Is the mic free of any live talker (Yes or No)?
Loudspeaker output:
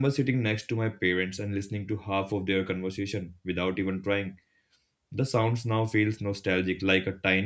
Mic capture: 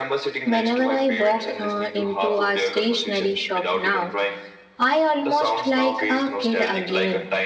No